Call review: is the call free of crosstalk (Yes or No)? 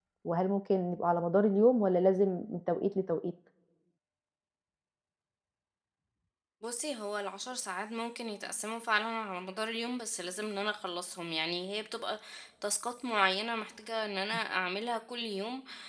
Yes